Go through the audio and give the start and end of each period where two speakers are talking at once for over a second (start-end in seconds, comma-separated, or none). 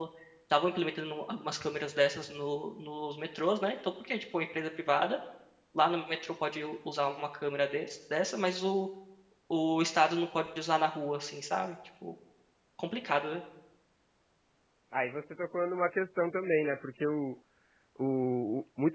none